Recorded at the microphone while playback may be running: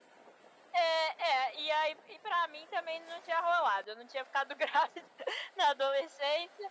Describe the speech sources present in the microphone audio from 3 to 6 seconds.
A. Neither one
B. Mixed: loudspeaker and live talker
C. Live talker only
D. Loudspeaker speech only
D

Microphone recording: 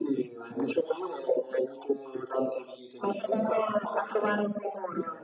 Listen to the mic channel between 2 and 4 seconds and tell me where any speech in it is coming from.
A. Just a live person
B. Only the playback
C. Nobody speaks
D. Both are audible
B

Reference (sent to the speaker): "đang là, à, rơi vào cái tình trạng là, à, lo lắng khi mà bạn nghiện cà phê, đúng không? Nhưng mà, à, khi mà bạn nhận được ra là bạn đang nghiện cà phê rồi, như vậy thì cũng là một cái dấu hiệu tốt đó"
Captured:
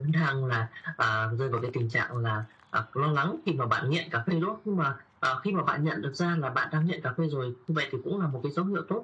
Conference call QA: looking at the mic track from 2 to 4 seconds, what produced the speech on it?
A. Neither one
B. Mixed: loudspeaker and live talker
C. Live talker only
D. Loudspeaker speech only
D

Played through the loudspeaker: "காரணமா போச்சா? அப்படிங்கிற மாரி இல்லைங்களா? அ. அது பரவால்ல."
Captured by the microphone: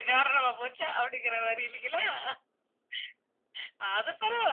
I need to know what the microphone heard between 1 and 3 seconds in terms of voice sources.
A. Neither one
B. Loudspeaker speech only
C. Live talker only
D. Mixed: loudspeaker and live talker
B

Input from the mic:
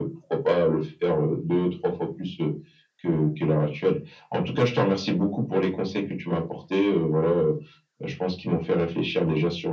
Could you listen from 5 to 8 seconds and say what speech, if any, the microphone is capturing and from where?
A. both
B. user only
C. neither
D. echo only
D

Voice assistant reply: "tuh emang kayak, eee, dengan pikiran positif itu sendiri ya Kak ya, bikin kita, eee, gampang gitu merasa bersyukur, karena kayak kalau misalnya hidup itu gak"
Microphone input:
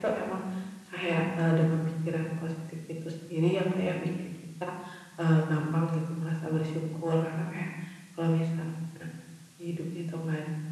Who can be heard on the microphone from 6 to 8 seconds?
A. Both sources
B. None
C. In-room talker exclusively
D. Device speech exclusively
D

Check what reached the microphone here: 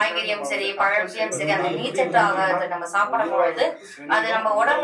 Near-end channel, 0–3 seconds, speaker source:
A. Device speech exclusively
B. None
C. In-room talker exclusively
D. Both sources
D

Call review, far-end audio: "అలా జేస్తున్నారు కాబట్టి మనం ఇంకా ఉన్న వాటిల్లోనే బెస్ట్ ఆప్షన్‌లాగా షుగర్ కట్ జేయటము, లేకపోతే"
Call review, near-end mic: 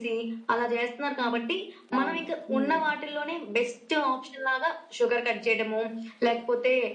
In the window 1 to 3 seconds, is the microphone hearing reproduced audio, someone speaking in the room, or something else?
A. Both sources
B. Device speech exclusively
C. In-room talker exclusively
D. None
A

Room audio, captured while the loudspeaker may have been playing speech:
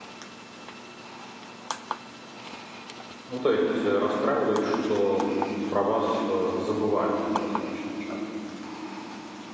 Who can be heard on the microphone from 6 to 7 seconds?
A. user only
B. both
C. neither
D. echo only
A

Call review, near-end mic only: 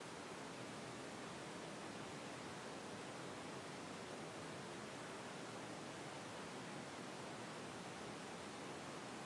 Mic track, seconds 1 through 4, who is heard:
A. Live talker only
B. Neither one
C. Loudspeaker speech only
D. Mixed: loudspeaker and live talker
B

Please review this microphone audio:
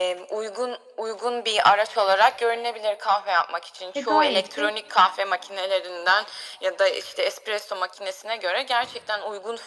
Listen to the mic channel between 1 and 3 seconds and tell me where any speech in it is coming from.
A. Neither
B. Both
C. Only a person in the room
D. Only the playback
D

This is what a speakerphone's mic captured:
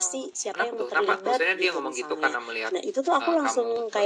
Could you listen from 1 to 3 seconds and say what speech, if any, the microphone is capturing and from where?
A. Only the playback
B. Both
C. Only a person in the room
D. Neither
A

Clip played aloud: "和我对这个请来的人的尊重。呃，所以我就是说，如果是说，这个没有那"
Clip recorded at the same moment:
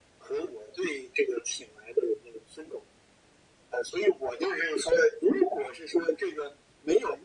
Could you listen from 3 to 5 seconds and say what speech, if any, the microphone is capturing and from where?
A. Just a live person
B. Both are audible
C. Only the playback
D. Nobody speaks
C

